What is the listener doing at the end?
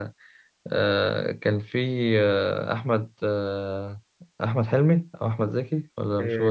taking over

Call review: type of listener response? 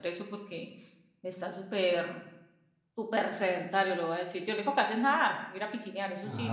taking over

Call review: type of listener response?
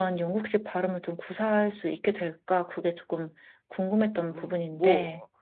taking over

